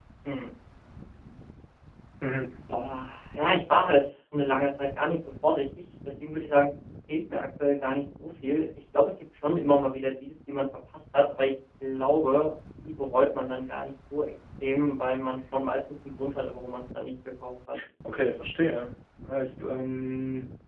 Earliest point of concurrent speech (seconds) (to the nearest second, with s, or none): none